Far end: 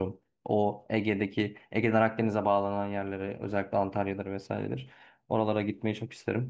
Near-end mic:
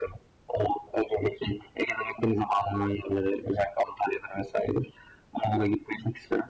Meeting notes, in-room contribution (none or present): none